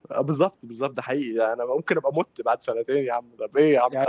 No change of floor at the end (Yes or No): No